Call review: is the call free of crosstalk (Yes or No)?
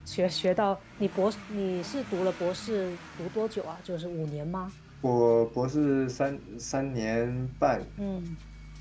Yes